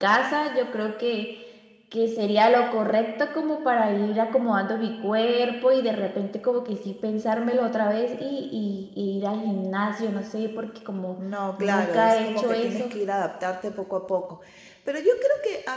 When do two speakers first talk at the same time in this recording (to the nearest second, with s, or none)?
12 s